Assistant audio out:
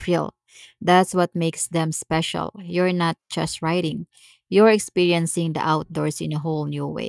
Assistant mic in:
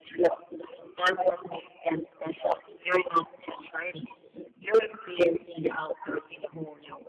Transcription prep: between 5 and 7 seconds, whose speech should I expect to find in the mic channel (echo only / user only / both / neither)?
echo only